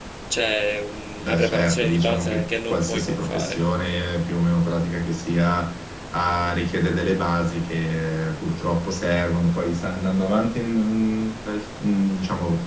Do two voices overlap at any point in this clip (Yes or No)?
Yes